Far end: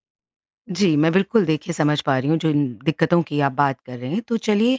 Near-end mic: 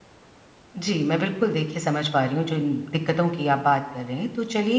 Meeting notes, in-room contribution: none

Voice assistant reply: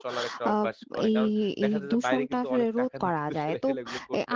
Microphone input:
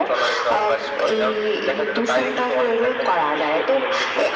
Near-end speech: none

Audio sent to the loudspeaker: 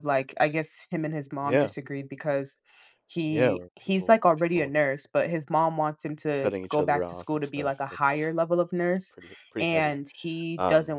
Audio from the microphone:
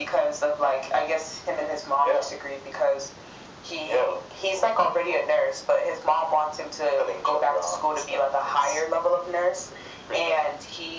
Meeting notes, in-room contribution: none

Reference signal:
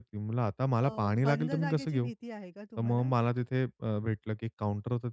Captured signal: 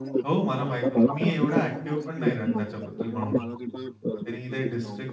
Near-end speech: present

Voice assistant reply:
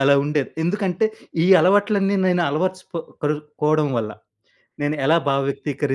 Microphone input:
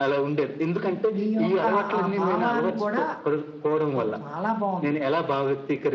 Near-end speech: present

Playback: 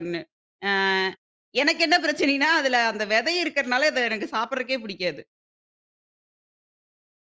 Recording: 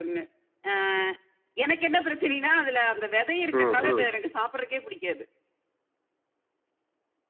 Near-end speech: present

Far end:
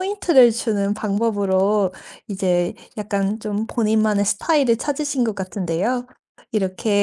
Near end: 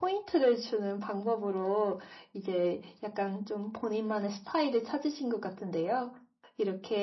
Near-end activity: none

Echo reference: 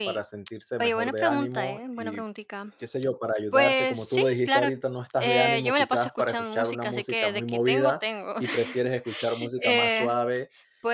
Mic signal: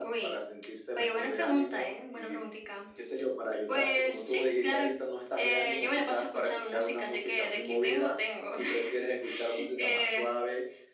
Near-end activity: none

